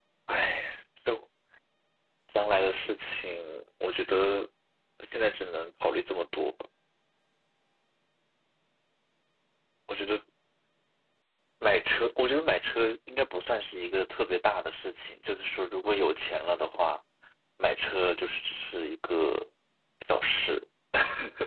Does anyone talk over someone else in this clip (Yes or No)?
No